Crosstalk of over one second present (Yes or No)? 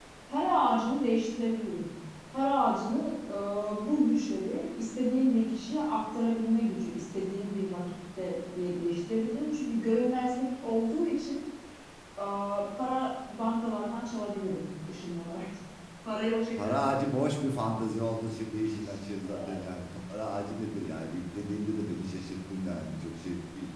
No